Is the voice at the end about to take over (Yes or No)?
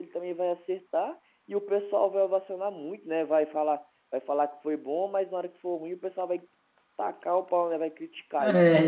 Yes